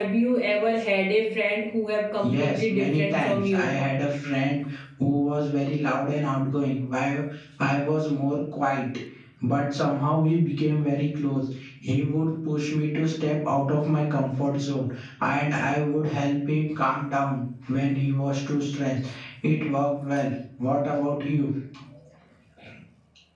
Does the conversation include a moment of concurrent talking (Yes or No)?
Yes